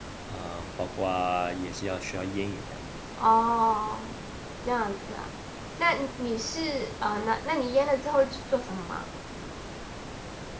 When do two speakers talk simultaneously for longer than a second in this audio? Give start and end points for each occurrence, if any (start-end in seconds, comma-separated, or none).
none